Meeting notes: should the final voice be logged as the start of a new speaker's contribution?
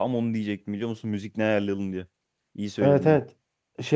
Yes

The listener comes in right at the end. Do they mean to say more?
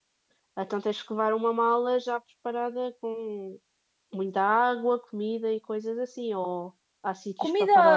Yes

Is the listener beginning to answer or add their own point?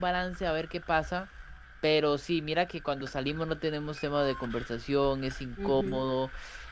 No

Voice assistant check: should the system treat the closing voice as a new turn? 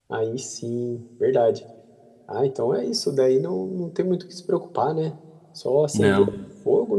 No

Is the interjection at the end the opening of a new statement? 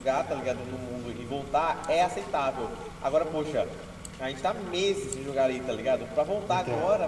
No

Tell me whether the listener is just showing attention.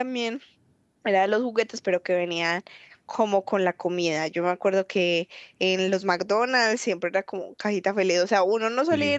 Yes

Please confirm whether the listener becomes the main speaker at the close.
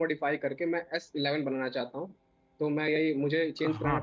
No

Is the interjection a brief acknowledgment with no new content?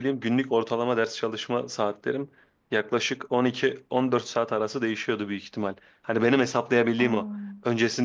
Yes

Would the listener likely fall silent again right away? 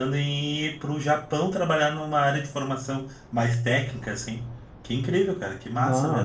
No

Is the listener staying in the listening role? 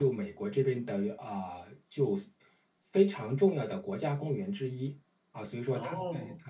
Yes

